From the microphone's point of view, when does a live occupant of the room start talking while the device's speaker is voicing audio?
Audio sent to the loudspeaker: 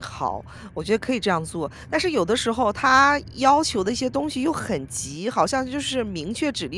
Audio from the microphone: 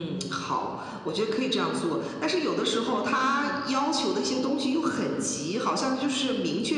3 s

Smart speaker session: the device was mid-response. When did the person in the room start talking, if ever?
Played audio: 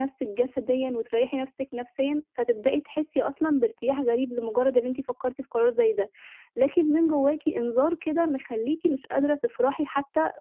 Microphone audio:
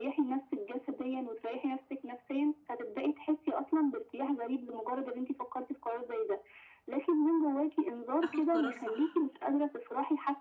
8 s

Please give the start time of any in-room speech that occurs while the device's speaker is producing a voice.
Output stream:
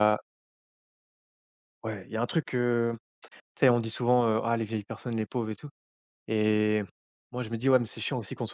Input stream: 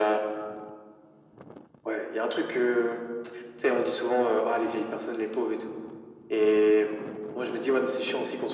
none

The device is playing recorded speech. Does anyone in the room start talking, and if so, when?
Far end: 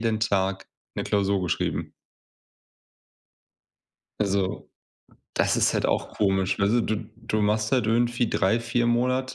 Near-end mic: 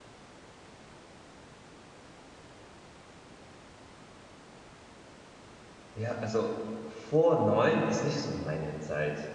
6 s

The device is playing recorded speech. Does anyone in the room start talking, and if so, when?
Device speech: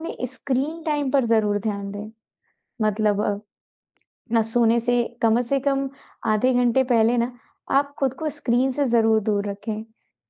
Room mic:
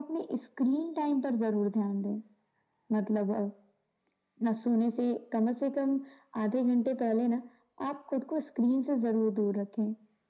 none

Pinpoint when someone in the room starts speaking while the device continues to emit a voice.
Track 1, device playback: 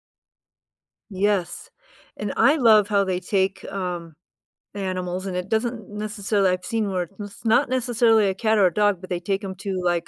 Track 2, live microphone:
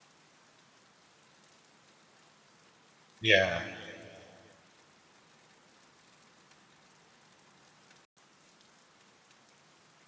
3 s

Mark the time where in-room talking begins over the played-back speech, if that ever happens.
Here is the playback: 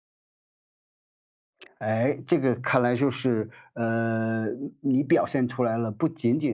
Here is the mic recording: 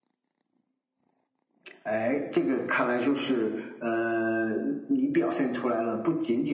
none

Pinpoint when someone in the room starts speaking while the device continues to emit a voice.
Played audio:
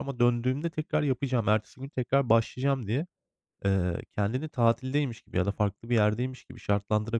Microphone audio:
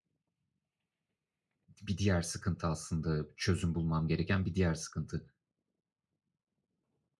2 s

